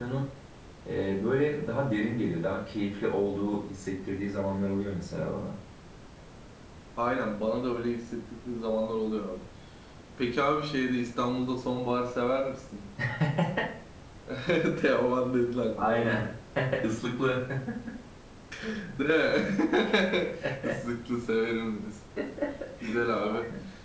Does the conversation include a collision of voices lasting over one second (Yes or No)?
No